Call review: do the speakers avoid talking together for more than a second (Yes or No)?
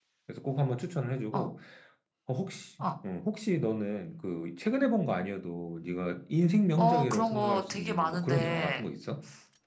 No